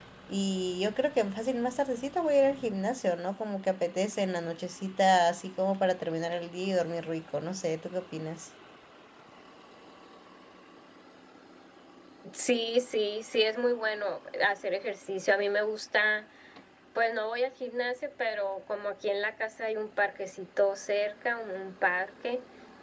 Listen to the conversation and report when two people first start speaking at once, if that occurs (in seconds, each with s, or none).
none